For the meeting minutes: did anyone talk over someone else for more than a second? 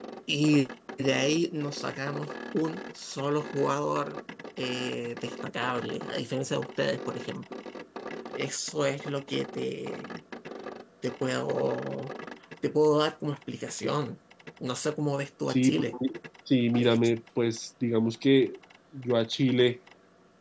No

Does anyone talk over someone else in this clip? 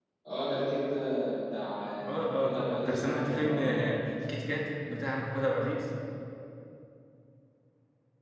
Yes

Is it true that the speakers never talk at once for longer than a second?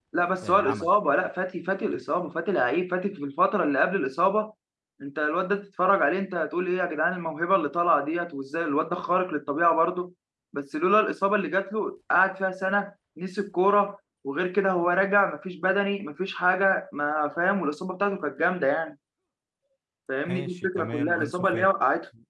No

